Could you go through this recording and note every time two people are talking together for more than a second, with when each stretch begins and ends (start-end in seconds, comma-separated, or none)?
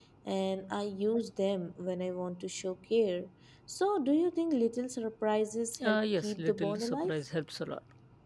5.8-7.1